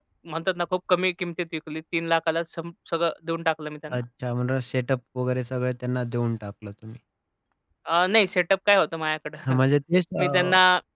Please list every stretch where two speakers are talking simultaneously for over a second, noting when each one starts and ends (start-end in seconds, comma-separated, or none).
none